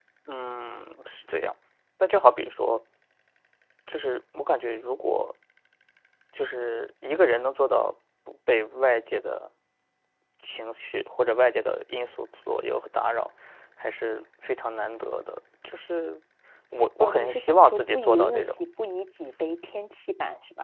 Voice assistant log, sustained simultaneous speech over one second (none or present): present